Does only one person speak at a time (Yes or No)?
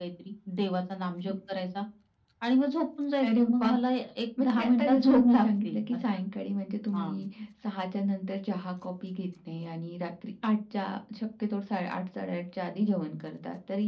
No